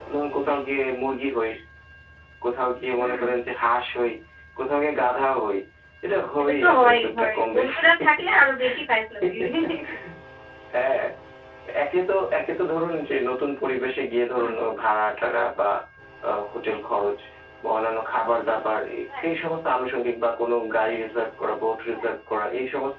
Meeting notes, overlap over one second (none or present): present